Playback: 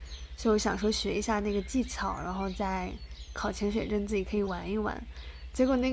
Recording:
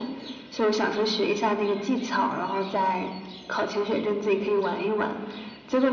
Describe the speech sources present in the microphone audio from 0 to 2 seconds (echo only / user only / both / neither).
echo only